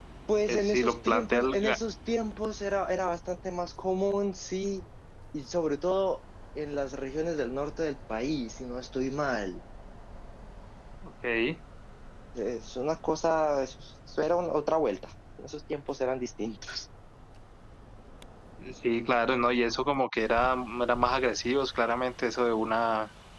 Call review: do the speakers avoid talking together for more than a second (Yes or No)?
No